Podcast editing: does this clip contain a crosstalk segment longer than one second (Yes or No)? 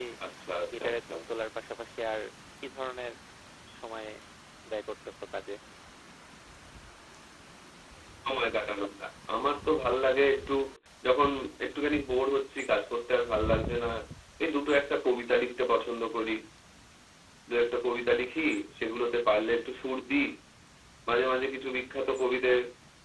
No